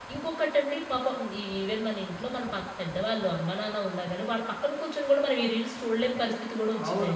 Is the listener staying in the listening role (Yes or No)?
No